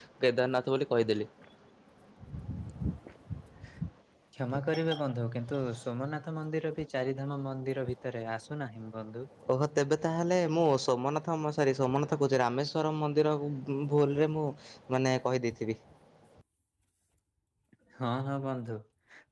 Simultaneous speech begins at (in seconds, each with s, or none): none